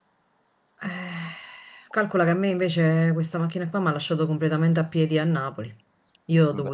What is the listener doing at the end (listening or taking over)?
listening